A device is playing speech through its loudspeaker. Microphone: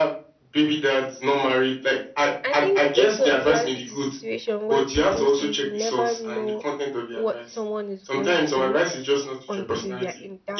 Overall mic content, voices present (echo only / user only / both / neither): both